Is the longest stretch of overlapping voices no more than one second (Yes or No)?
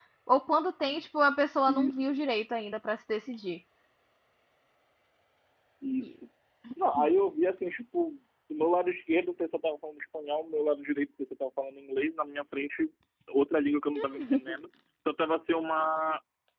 Yes